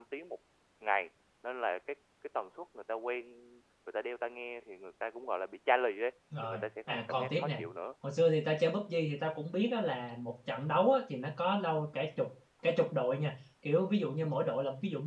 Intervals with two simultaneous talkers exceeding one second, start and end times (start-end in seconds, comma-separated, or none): 6.4-7.6